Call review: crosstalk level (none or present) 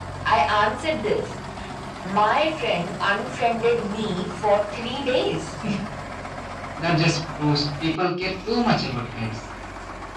none